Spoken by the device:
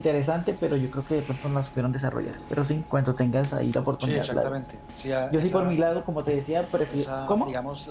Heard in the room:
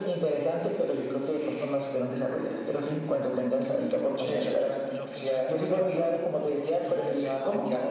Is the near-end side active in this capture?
Yes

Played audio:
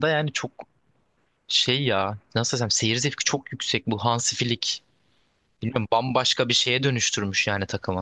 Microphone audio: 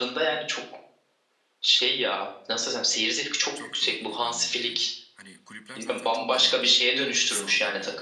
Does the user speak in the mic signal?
Yes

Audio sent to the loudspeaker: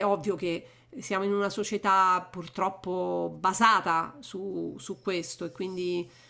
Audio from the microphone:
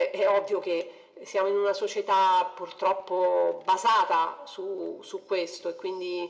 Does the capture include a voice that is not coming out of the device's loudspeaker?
No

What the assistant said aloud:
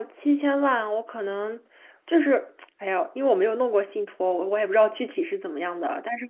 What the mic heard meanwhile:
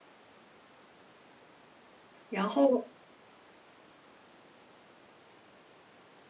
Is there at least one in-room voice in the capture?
Yes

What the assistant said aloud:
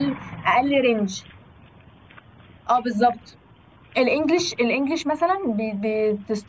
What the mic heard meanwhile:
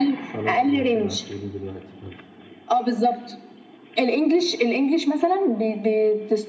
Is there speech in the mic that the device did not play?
Yes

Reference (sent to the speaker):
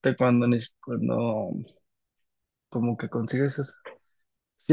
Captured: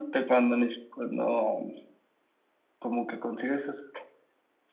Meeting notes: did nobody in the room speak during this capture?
Yes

